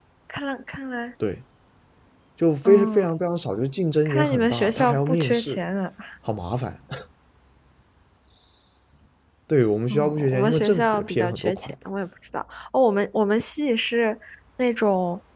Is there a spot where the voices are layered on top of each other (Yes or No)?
Yes